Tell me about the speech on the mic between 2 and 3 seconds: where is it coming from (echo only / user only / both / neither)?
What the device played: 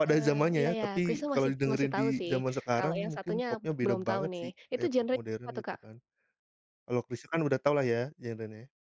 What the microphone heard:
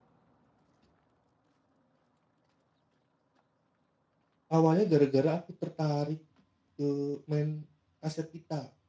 neither